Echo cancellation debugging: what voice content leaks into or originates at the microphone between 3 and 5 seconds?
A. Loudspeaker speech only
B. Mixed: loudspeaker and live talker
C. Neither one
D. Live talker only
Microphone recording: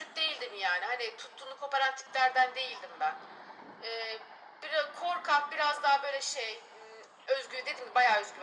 A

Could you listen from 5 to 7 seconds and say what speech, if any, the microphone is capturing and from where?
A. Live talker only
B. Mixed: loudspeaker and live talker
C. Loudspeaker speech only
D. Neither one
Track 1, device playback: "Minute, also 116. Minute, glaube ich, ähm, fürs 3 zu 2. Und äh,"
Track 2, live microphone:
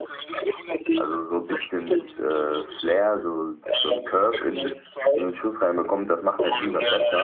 B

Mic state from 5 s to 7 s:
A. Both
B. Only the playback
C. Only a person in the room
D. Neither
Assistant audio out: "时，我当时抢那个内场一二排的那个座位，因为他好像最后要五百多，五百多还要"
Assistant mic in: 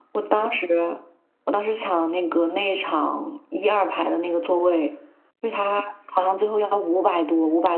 B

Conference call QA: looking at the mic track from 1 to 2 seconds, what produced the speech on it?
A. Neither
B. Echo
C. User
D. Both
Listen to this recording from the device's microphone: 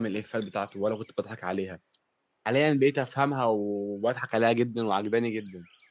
C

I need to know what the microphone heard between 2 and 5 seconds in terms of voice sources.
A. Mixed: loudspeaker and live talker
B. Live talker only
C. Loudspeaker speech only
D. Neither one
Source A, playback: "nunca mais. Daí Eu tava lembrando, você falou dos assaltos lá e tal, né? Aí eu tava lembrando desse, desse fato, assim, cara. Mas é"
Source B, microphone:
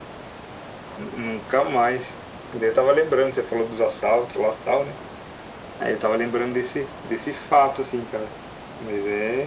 C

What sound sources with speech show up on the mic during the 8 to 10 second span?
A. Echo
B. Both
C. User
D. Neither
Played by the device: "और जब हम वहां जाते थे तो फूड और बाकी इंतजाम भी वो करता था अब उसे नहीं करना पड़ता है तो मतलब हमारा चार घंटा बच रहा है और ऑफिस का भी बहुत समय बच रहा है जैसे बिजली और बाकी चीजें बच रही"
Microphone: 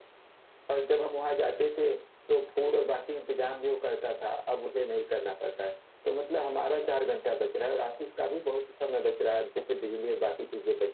A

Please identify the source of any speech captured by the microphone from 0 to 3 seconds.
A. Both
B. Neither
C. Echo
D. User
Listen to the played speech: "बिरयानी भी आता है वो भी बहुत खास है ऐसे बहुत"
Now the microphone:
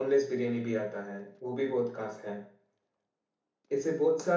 C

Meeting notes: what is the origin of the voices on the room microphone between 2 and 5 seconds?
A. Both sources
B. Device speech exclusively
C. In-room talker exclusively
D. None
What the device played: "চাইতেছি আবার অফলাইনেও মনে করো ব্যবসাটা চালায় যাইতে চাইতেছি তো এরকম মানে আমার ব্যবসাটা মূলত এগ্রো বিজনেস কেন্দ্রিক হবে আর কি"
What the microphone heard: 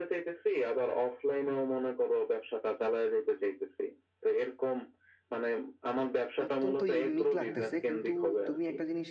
B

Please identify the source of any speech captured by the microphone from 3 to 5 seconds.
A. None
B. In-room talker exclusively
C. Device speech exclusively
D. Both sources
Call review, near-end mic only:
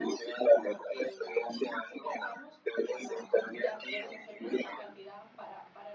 D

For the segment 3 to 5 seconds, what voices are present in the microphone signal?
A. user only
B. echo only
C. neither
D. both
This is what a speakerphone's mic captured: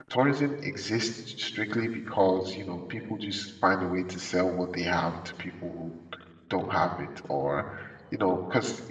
A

